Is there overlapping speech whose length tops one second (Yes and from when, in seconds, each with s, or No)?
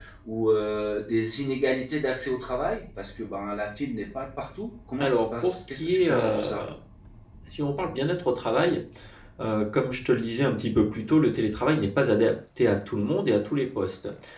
Yes, from 5.0 s